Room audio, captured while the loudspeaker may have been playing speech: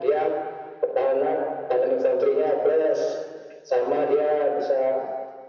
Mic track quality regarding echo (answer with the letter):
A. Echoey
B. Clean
A